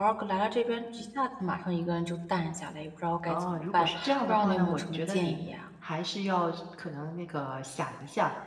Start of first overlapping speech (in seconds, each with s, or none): 3.3 s